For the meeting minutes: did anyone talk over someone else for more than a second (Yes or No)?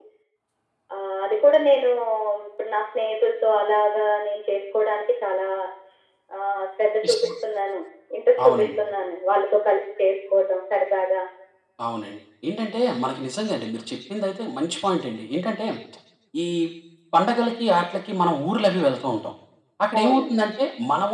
No